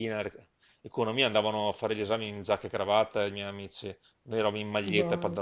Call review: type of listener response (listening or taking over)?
taking over